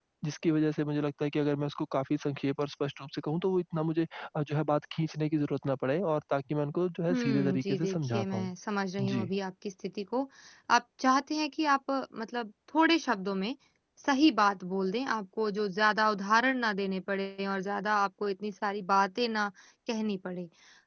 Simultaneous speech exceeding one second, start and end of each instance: 7.1-8.5

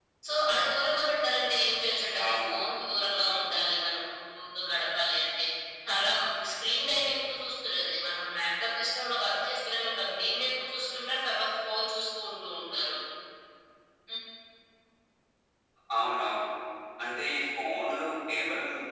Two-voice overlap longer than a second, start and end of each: 2.2-3.4

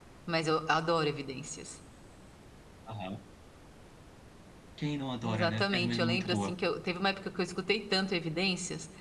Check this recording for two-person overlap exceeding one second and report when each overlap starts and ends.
5.2-6.5

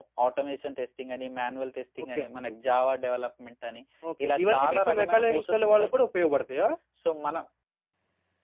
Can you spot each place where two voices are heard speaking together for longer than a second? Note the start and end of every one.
4.4-5.9

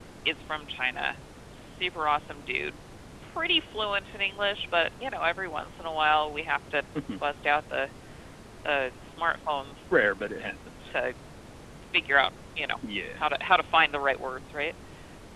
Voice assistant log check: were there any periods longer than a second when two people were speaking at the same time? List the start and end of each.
none

